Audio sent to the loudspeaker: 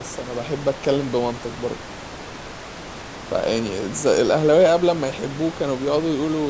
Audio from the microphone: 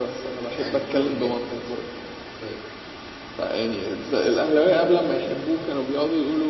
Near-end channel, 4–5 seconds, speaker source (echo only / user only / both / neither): echo only